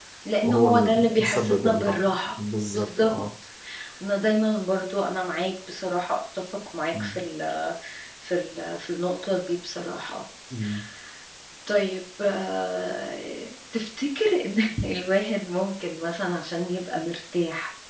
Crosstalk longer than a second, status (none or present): present